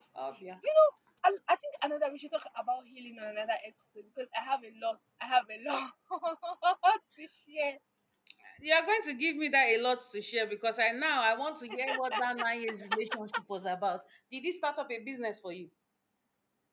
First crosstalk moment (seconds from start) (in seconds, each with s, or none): none